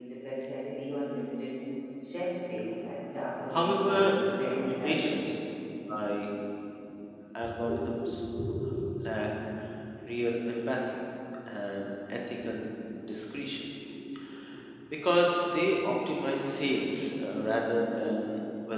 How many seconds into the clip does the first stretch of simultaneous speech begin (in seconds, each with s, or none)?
3.5 s